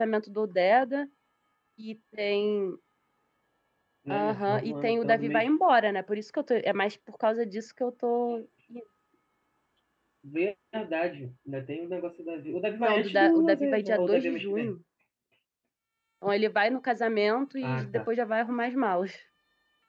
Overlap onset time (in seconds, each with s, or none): 4.1 s